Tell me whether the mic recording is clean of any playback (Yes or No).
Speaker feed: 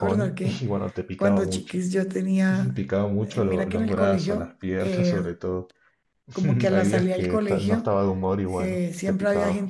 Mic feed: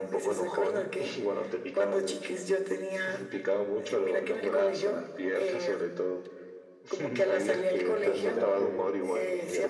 No